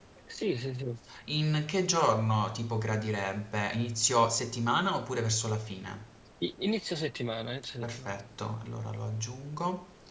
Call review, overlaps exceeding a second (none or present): none